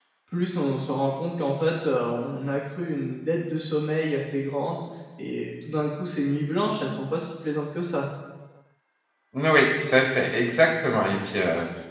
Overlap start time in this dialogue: none

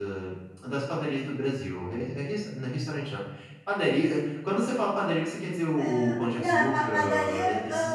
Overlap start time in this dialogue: 5.8 s

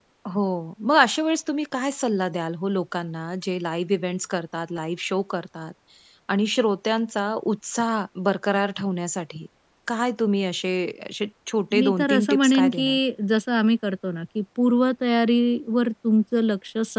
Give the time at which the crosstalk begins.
11.8 s

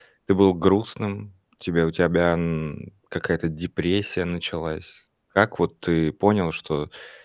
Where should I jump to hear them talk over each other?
none

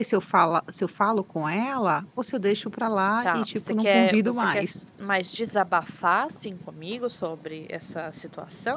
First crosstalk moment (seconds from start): 3.2 s

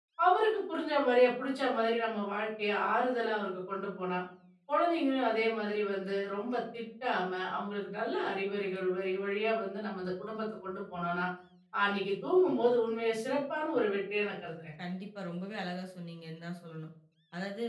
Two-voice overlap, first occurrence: none

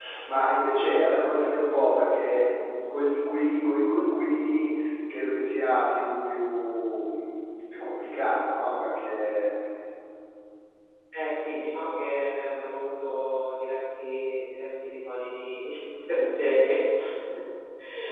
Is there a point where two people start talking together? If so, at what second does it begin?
none

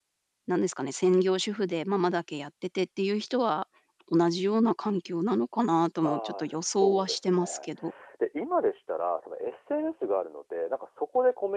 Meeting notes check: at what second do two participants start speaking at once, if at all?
6.0 s

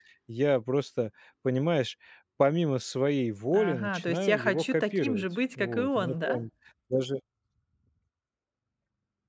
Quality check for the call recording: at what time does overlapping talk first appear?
3.5 s

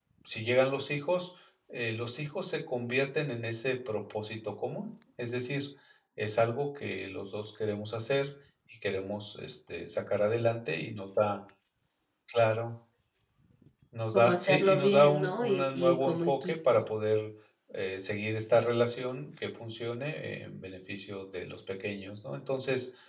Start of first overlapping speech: 14.1 s

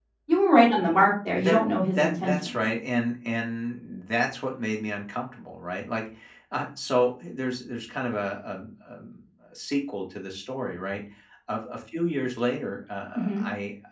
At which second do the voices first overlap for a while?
1.4 s

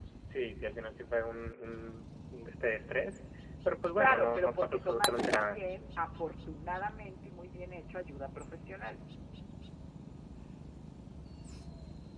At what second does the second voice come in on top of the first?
4.0 s

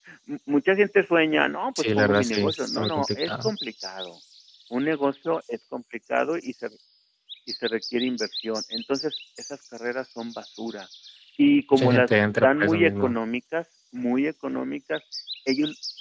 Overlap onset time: 1.8 s

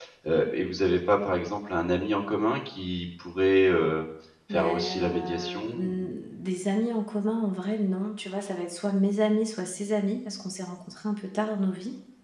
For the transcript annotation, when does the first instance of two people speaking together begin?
4.5 s

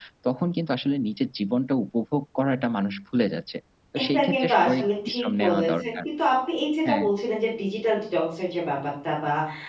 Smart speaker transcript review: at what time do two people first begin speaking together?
4.0 s

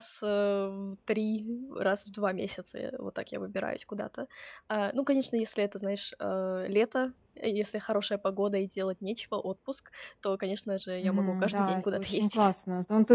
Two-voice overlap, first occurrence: 11.0 s

